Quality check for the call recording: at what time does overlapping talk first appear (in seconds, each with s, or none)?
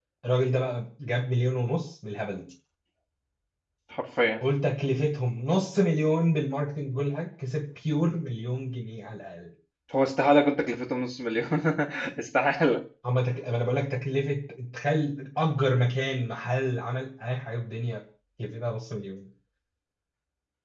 none